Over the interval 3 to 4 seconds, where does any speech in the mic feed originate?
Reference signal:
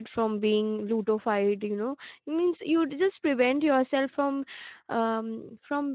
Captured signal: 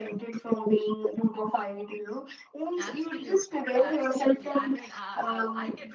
both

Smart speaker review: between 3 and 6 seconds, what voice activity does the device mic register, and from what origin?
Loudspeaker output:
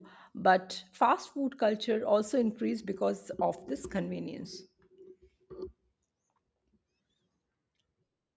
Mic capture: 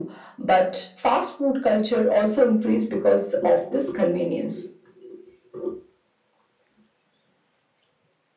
echo only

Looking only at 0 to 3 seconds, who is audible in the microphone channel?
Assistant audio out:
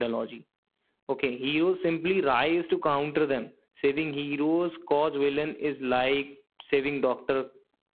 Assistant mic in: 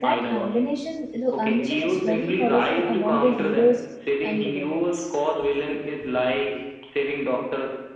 both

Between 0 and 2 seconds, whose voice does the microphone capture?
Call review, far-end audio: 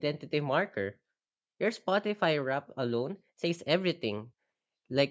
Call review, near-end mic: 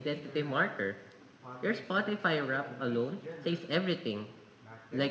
both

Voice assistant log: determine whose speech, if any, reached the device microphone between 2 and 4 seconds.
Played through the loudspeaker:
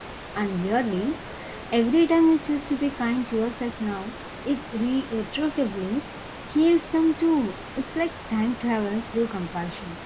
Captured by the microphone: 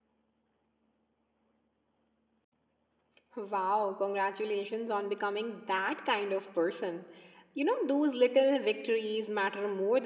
user only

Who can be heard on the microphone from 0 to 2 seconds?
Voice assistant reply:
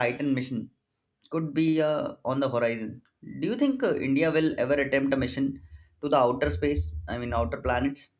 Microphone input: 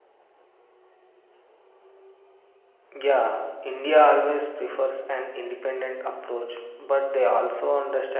neither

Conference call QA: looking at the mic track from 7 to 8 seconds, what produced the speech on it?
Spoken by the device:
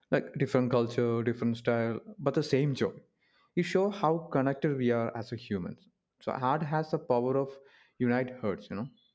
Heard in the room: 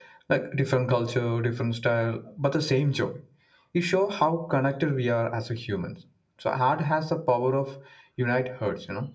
echo only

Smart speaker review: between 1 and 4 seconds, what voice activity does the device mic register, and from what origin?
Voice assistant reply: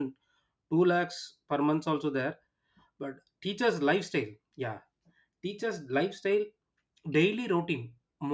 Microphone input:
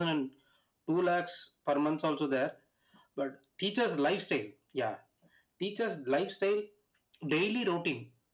echo only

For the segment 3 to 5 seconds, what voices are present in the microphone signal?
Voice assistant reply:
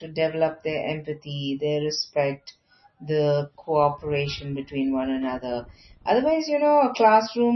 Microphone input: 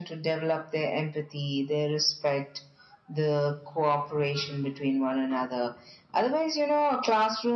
echo only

